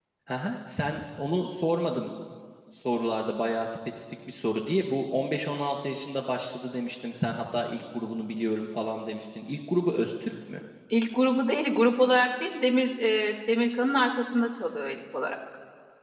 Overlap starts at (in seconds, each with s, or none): none